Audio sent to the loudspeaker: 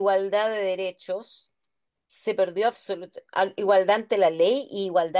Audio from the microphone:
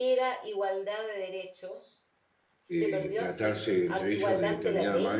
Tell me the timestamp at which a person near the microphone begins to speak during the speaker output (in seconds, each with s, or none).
2.7 s